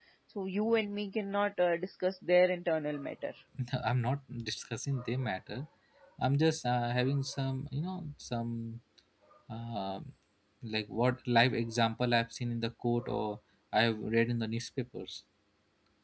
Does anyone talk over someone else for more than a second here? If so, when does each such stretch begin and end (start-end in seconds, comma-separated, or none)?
none